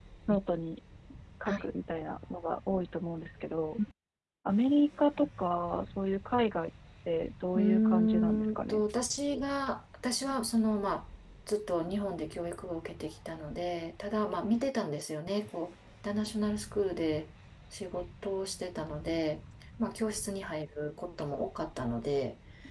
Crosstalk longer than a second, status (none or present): present